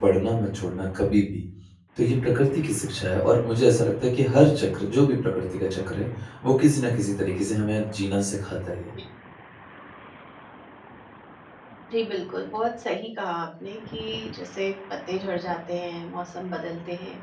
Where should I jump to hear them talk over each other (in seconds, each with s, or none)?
none